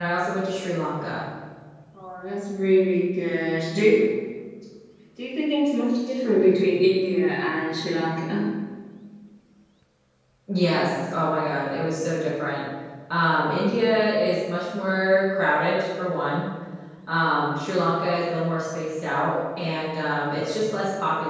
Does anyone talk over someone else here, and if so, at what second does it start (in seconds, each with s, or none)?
none